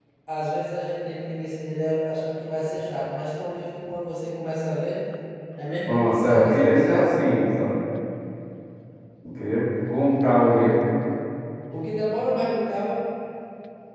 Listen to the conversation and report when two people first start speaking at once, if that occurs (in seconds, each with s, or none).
5.9 s